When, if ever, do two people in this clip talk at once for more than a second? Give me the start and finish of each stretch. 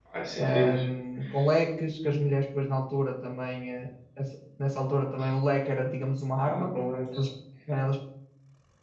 none

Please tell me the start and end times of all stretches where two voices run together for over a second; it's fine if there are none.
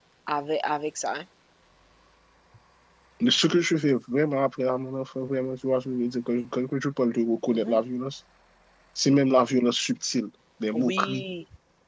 none

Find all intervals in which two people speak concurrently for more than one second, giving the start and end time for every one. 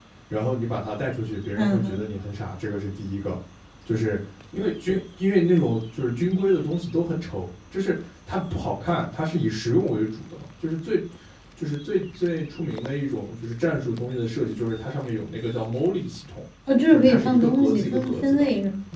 16.9-18.4

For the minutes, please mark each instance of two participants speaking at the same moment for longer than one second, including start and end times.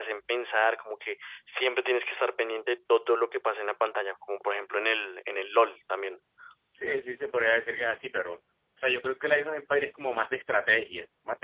none

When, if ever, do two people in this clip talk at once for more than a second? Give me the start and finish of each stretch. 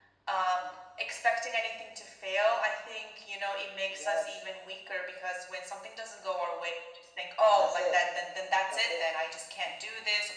none

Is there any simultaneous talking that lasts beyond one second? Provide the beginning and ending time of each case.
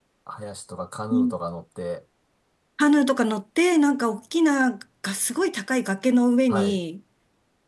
none

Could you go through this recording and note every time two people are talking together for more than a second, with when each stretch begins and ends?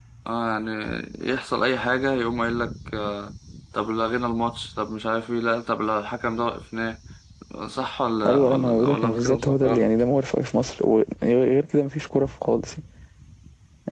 8.3-9.8

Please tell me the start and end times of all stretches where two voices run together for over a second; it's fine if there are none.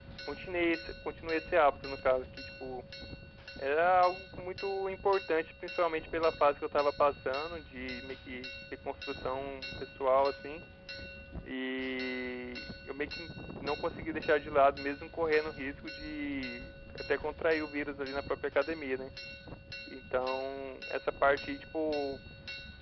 none

